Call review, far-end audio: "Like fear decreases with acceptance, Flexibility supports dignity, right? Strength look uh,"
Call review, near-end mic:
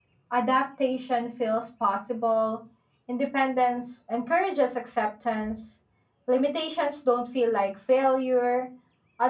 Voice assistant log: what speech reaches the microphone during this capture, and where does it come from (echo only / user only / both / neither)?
user only